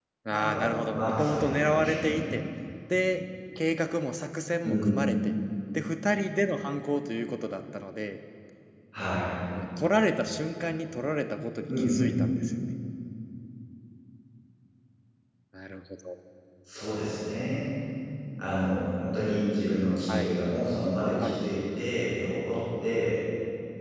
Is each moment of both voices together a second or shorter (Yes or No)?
No